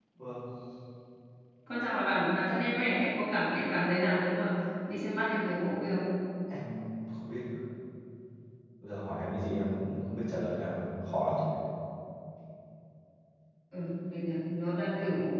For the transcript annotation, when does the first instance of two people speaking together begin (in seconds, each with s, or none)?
none